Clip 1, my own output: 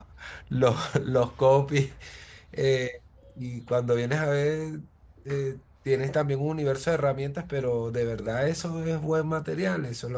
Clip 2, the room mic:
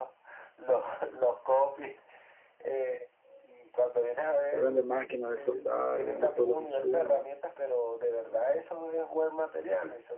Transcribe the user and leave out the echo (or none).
Él vende máquinas de soldar, vende todos los insumos.